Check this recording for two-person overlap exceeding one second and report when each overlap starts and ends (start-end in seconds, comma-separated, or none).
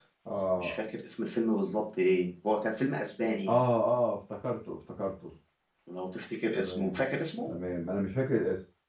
none